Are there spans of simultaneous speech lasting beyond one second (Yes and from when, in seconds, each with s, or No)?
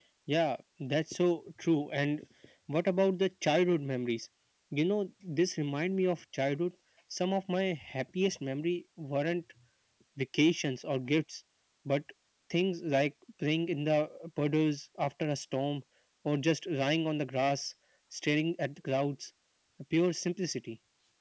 No